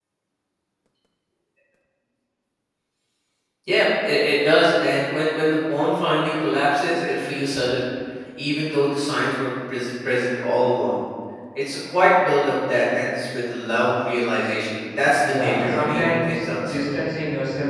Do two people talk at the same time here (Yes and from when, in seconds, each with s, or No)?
Yes, from 15.2 s